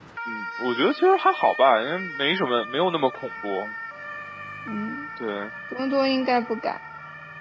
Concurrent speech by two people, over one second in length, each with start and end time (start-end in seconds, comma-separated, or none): none